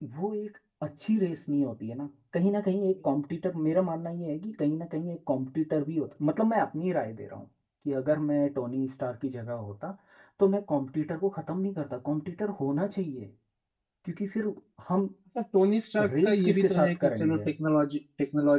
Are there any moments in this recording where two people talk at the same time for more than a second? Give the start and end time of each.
16.2-17.5

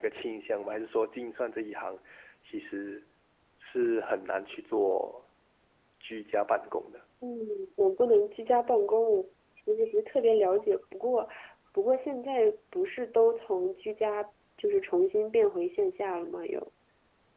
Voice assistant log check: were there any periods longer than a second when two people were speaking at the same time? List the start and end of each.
none

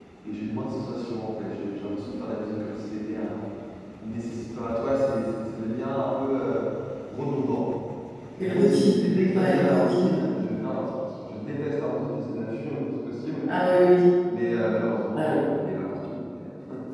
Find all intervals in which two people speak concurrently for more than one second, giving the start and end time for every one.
8.4-10.2

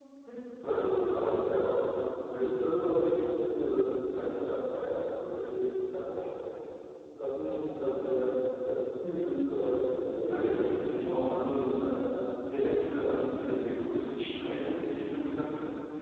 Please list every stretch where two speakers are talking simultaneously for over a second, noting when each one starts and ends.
10.3-11.6

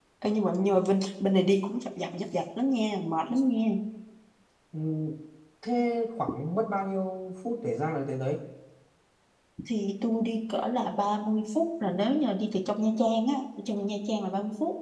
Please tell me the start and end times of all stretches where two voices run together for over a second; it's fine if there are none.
none

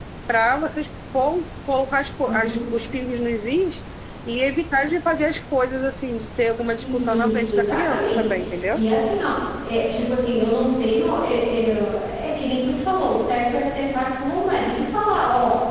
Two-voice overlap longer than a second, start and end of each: 6.8-8.2

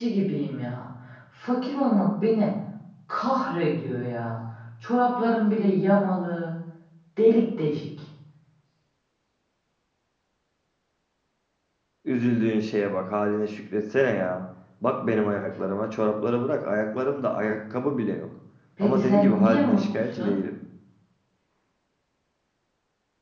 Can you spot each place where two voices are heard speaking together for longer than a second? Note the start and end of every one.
18.8-20.3

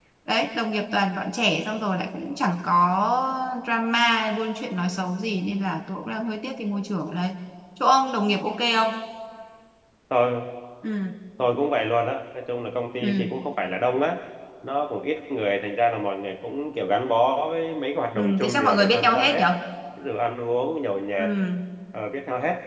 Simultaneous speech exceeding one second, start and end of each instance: 18.2-19.4

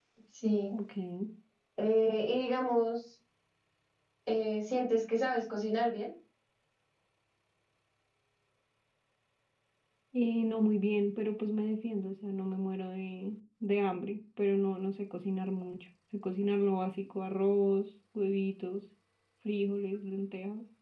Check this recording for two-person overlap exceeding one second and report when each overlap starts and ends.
none

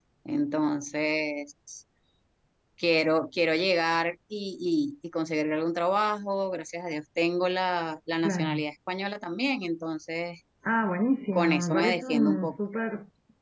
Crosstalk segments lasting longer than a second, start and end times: 11.3-12.6

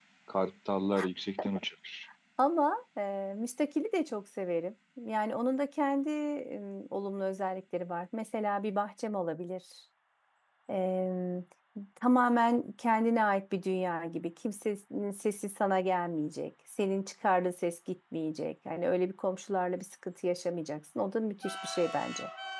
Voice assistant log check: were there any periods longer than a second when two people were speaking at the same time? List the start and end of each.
none

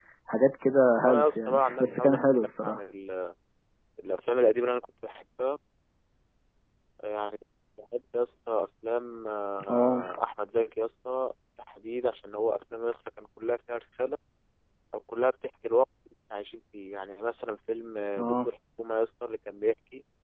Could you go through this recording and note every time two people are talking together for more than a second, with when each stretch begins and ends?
1.0-2.8

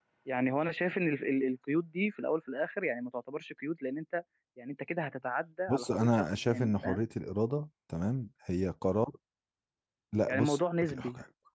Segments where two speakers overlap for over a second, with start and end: 5.7-7.0

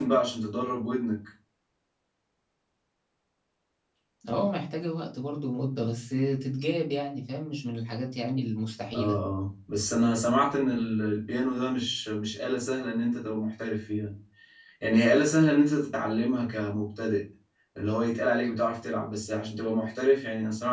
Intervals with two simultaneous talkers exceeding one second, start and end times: none

